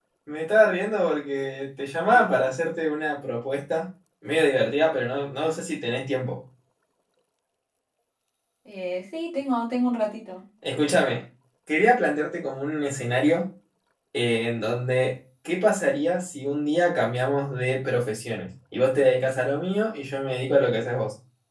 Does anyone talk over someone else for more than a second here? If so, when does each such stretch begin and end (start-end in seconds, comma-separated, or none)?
none